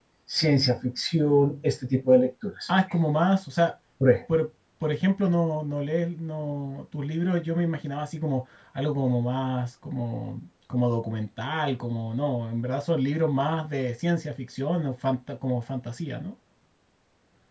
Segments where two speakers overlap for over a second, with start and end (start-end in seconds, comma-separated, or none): none